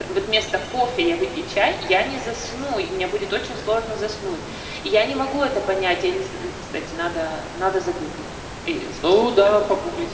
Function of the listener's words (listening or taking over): taking over